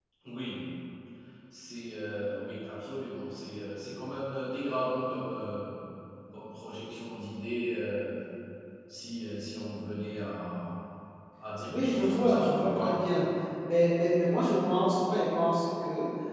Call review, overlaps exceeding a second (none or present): present